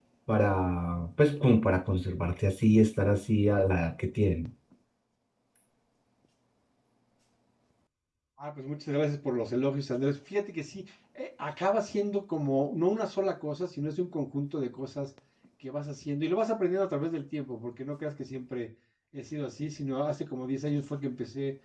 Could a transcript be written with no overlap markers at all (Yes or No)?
Yes